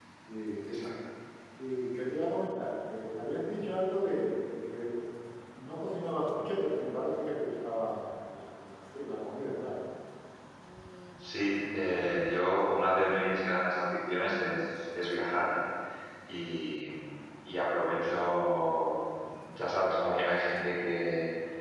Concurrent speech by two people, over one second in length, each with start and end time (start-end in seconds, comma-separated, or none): none